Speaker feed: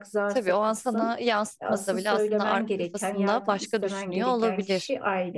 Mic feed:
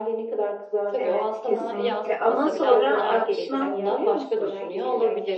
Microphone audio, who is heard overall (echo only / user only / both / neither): both